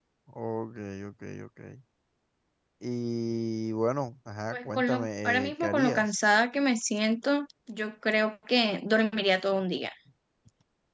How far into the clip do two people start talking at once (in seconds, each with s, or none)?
4.5 s